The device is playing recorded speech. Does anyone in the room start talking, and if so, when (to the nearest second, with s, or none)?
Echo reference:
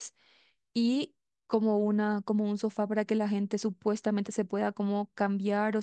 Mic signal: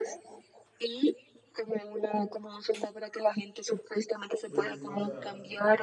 4 s